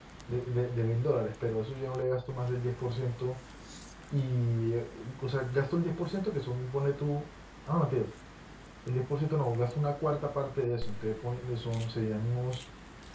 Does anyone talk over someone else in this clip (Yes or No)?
No